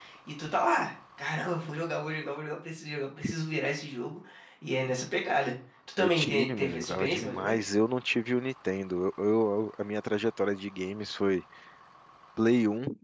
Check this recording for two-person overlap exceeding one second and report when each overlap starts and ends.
6.0-7.7

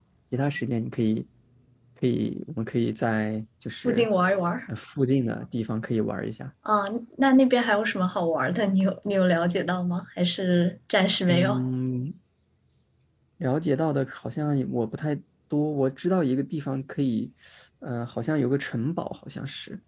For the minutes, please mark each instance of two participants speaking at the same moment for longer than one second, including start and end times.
none

